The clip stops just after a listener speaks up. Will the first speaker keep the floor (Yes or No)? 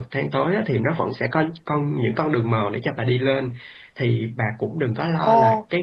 Yes